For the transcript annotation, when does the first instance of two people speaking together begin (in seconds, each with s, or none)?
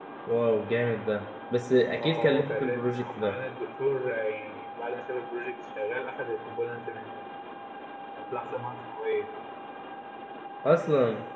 2.0 s